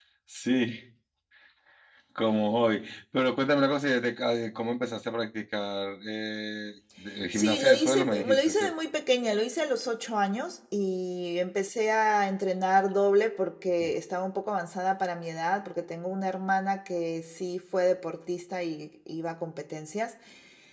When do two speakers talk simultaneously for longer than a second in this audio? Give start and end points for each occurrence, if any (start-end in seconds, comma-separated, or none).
7.3-8.7